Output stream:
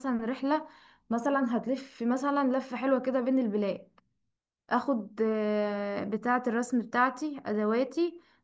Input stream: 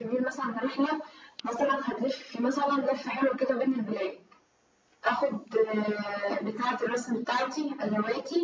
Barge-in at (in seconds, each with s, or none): none